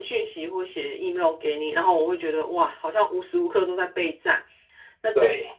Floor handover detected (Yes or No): No